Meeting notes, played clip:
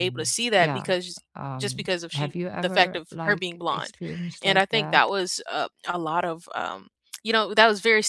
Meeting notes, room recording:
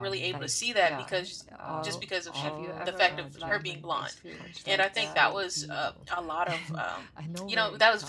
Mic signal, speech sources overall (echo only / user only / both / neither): both